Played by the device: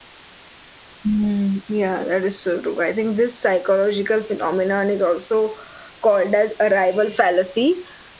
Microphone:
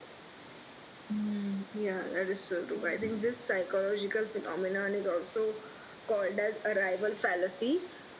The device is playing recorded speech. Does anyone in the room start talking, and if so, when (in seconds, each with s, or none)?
2.7 s